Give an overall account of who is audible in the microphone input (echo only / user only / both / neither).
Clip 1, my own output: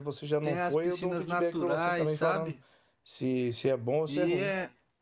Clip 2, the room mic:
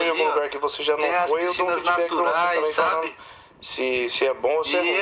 echo only